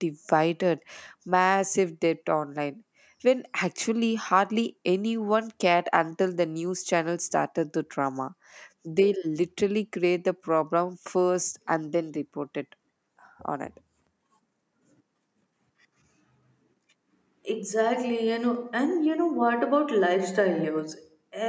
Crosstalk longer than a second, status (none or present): none